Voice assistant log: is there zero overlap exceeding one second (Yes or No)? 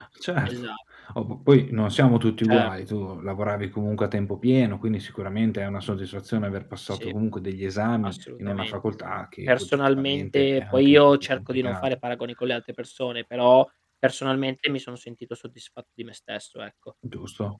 No